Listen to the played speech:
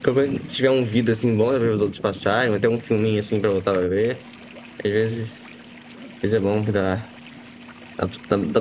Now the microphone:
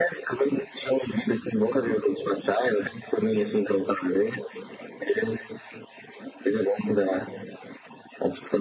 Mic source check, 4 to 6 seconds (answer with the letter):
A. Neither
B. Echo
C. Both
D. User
B